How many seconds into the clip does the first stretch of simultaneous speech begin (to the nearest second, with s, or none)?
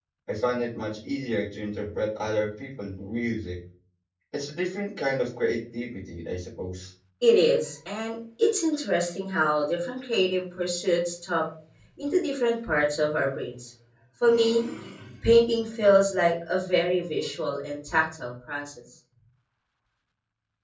none